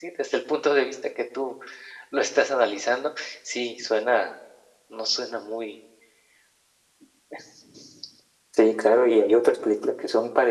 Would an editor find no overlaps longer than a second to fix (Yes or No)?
Yes